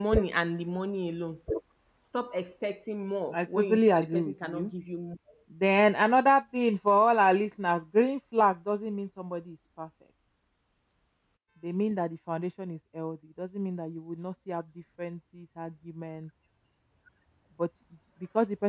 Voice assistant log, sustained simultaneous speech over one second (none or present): present